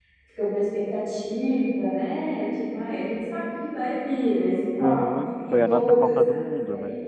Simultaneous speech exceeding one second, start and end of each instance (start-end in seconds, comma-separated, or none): 4.8-6.3